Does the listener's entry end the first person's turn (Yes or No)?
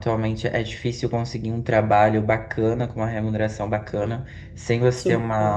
No